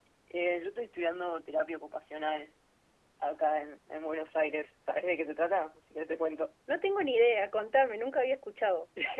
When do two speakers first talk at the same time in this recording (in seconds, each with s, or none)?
none